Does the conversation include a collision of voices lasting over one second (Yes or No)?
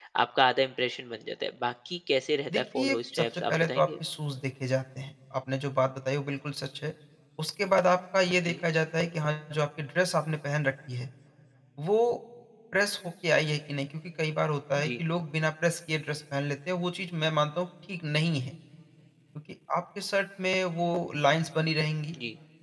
Yes